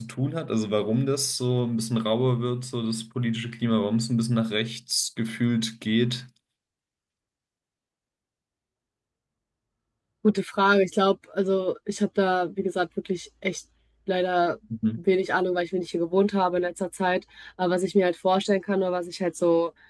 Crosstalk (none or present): none